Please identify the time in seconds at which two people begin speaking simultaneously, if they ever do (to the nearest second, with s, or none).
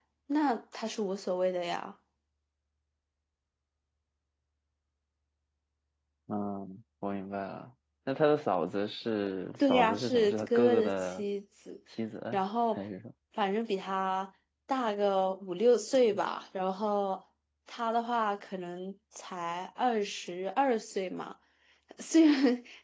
10 s